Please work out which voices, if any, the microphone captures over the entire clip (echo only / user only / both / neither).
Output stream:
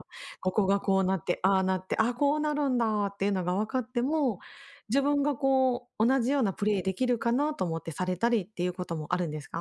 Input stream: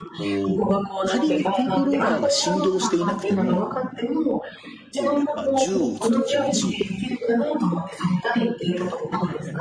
both